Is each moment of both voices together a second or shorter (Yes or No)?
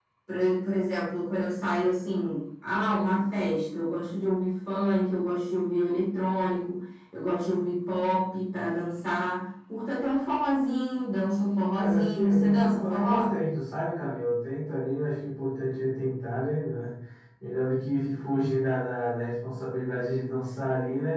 No